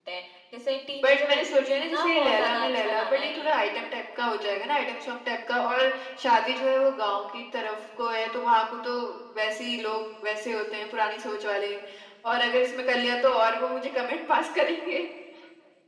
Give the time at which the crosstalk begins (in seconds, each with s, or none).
1.0 s